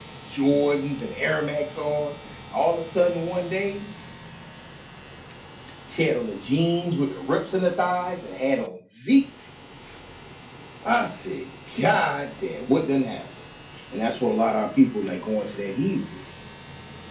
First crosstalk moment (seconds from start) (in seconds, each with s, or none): none